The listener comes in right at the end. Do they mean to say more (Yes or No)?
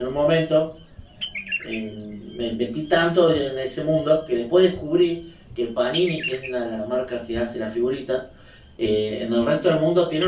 No